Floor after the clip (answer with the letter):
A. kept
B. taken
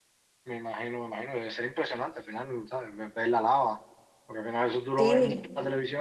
A